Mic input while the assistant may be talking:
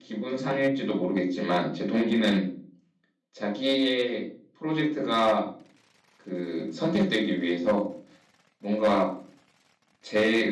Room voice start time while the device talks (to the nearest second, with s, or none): none